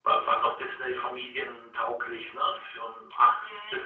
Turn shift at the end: Yes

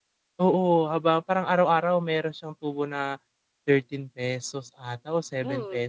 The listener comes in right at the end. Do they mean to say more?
Yes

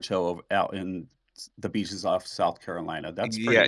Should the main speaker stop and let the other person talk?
Yes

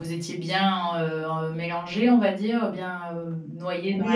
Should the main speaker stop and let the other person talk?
Yes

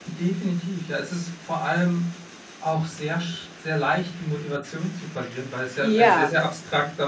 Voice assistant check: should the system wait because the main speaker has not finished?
Yes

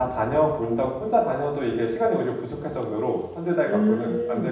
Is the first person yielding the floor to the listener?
Yes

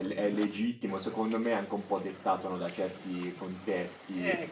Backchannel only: Yes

